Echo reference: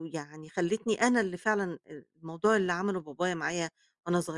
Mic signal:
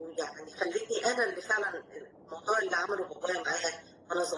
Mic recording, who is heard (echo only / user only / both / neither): echo only